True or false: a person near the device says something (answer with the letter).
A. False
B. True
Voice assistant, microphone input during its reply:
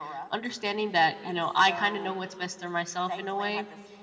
A